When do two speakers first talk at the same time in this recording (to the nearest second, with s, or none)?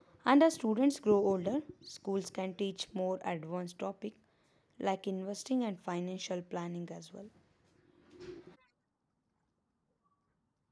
none